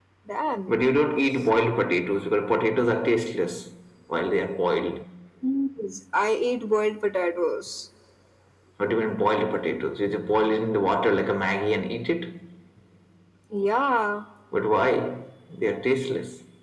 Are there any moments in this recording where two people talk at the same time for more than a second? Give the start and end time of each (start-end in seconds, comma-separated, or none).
none